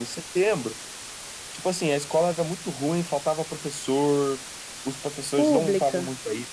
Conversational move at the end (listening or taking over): listening